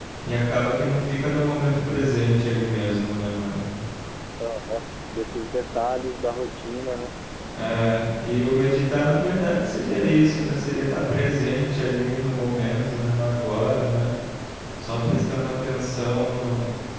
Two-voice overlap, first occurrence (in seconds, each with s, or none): none